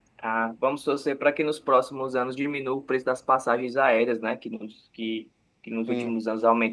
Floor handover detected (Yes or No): No